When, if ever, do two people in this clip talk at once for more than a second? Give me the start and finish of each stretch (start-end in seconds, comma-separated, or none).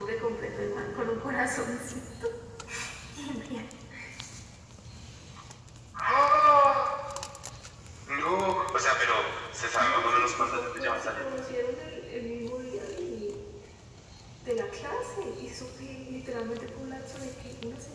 9.8-11.3